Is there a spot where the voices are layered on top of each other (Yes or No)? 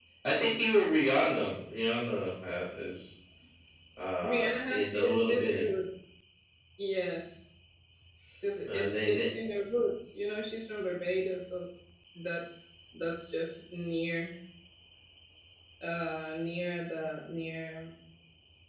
Yes